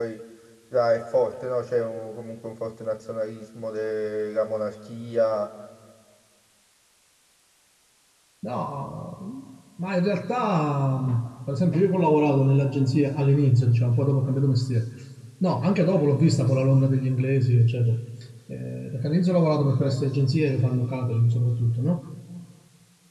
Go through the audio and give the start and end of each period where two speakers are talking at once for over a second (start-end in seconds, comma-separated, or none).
none